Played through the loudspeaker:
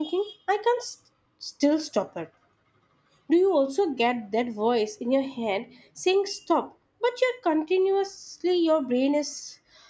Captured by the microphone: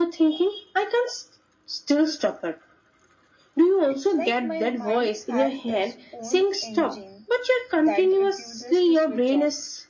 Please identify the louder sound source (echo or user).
echo